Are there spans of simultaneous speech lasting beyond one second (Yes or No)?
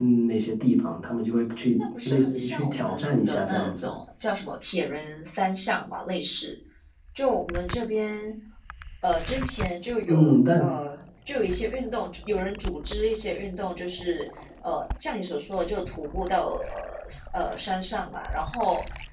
Yes